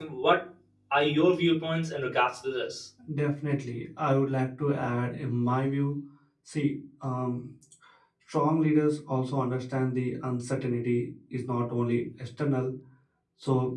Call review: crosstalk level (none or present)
none